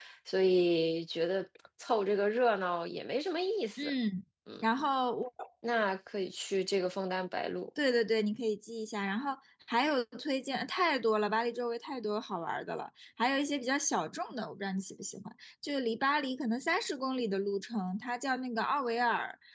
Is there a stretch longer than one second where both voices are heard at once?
No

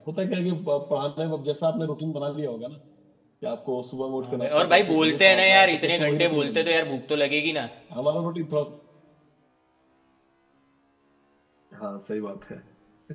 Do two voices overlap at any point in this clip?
Yes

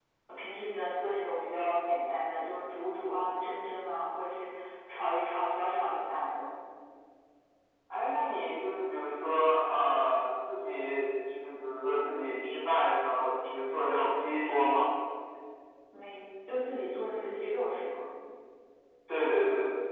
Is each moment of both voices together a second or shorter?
Yes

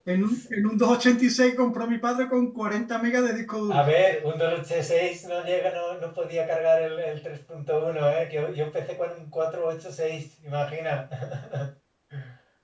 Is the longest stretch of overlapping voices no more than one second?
Yes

